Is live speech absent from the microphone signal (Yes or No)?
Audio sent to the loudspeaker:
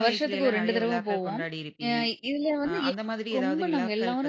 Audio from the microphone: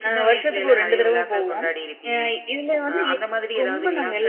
Yes